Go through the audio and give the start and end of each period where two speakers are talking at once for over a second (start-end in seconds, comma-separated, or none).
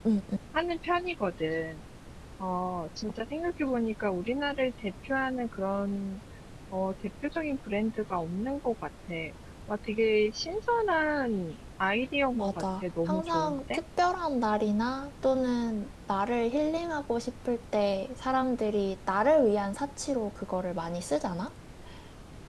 12.3-13.8